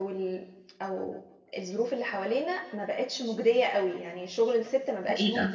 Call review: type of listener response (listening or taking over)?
listening